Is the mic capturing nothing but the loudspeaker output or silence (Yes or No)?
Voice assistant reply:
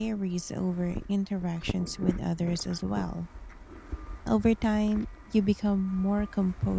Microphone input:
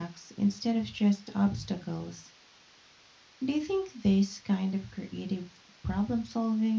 No